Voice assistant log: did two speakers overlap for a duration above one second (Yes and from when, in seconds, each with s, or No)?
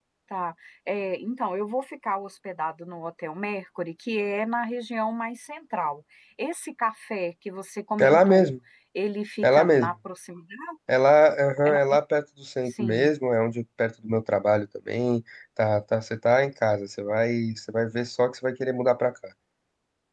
No